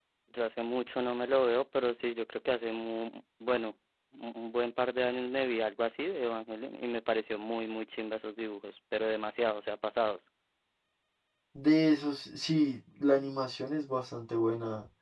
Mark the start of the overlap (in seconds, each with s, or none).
none